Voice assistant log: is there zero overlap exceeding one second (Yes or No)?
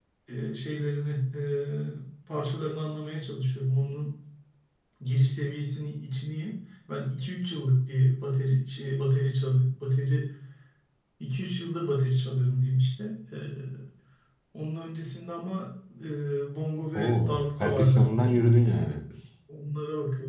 No